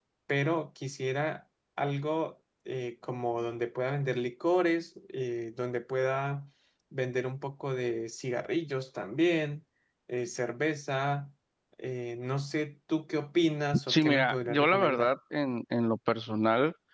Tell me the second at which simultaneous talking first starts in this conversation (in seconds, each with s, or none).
13.9 s